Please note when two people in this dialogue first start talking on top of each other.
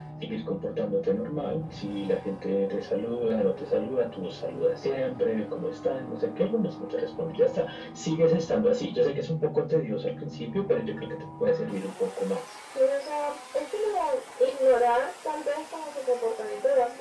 none

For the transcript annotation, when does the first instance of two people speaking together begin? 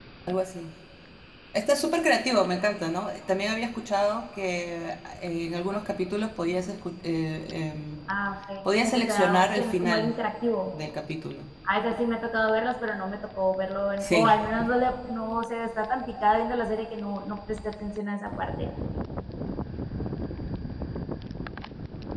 8.8 s

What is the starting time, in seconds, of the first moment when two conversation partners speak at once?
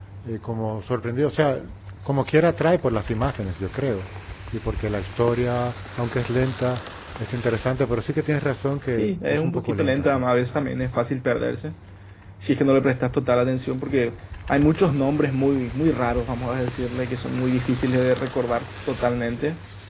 8.9 s

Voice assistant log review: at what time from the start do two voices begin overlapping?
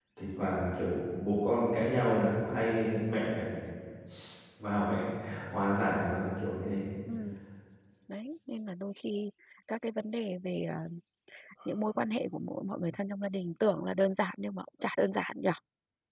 none

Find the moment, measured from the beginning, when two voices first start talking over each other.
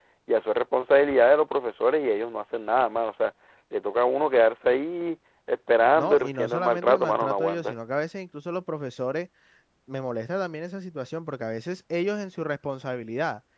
6.0 s

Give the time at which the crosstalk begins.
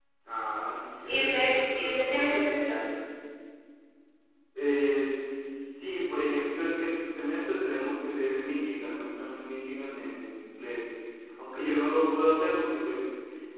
1.1 s

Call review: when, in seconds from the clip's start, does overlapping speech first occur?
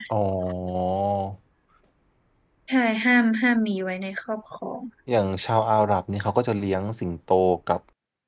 none

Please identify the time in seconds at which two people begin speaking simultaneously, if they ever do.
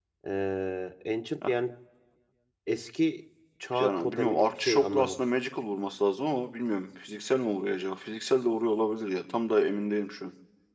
3.7 s

